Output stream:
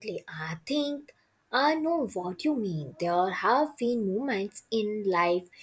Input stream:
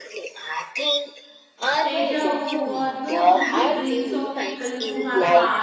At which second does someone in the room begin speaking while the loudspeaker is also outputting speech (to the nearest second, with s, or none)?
2 s